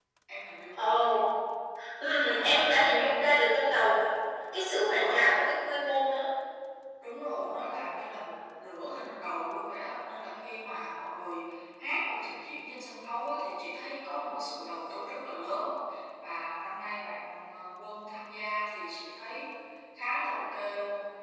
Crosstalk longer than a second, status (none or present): present